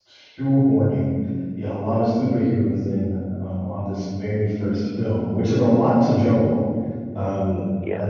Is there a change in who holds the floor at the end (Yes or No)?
No